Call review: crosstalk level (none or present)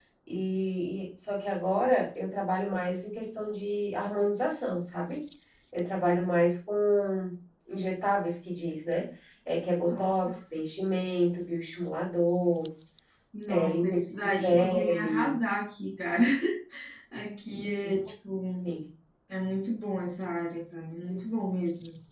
present